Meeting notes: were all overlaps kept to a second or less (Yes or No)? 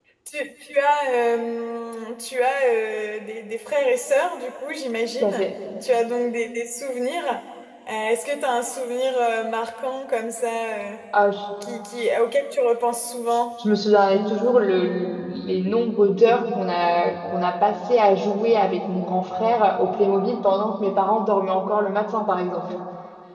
Yes